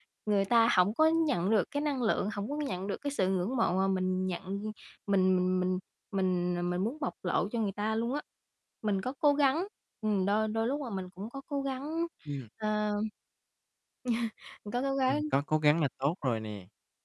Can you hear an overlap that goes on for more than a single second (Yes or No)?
No